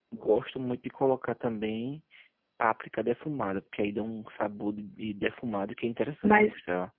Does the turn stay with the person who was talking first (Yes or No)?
No